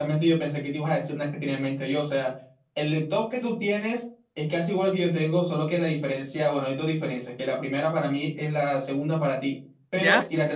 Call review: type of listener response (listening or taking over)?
listening